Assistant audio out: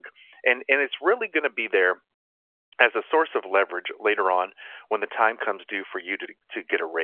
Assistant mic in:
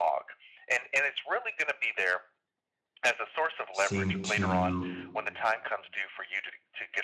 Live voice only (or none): seem to